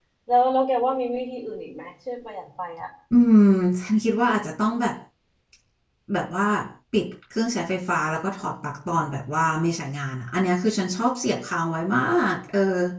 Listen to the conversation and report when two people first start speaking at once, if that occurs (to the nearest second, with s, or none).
none